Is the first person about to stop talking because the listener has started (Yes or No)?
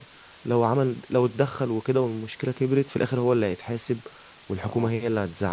No